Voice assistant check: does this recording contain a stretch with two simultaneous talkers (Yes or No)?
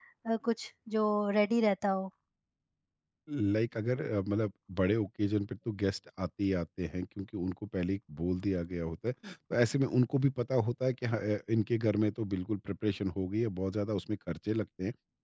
No